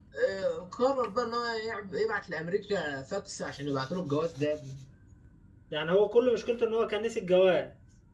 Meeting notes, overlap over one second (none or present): none